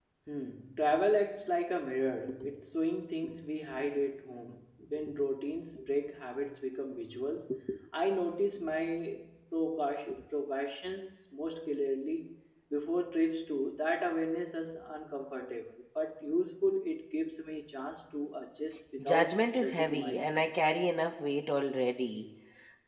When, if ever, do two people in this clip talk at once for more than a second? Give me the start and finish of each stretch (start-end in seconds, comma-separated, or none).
19.0-20.4